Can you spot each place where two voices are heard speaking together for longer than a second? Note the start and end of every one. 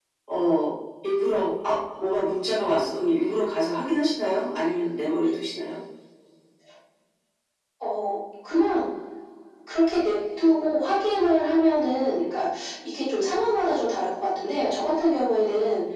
none

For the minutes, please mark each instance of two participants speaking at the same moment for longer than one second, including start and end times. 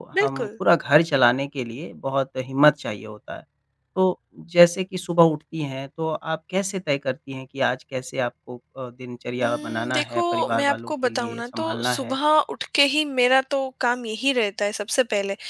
9.4-12.1

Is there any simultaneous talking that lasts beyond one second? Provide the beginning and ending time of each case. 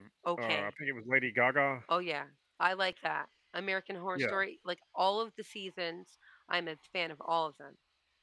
none

